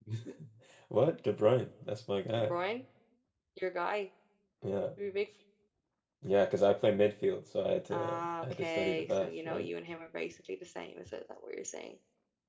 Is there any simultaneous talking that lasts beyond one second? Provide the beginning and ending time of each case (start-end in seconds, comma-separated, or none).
7.9-9.7